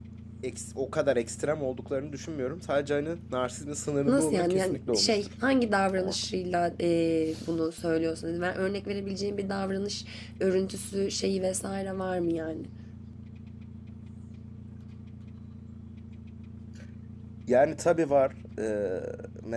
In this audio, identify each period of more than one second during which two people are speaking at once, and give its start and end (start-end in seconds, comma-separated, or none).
4.1-5.3